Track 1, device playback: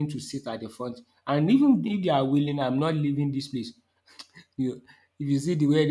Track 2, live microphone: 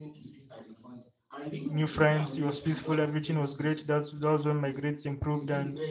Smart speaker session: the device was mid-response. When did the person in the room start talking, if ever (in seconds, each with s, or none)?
1.6 s